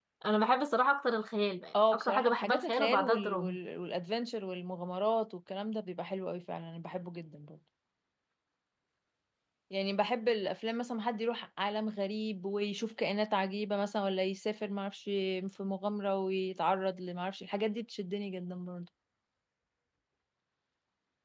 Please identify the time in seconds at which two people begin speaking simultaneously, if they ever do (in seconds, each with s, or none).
1.7 s